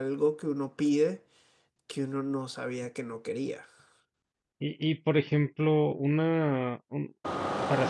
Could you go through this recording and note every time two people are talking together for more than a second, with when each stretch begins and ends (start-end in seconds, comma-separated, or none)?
none